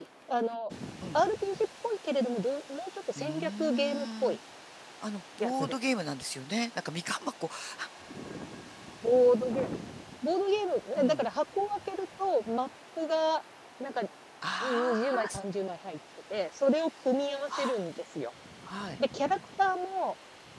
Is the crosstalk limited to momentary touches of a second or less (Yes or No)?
No